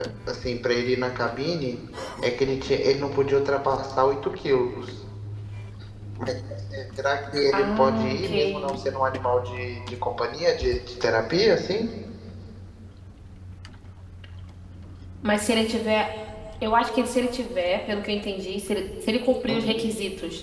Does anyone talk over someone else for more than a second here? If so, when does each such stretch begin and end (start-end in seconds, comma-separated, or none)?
7.5-8.7